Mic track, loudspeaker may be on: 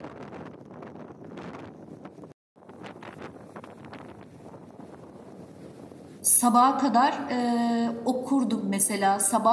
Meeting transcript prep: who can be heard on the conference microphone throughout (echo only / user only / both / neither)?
user only